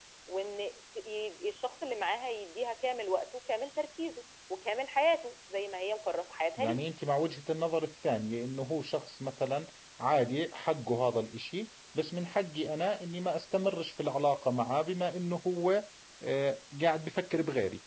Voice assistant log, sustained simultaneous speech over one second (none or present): none